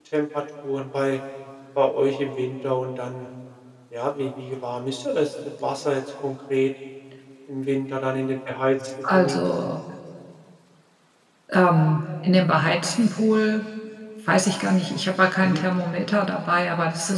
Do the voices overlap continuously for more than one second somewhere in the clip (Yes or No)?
No